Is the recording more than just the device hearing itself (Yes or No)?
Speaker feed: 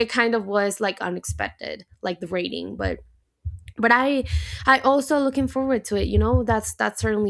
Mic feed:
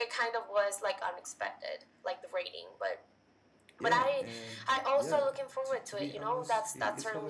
Yes